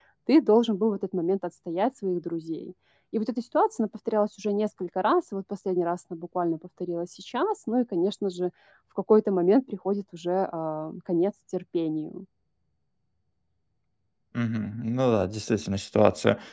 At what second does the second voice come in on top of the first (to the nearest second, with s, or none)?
none